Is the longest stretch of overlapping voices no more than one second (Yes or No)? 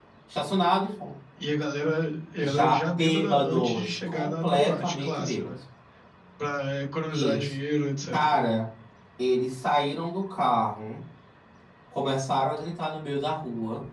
No